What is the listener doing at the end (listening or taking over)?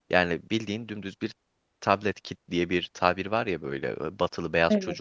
listening